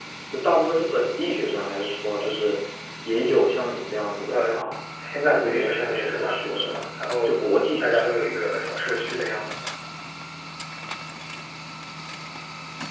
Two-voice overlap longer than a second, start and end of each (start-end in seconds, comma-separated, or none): 5.2-6.7